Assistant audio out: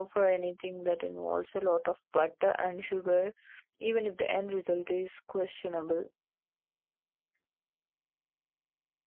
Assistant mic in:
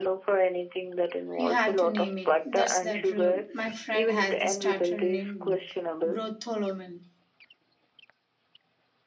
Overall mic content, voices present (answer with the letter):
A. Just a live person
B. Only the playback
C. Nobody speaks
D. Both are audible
D